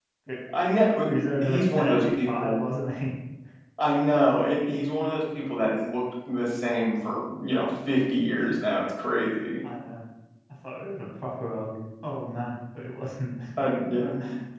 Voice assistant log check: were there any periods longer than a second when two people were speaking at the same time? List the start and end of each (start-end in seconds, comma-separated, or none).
1.4-2.6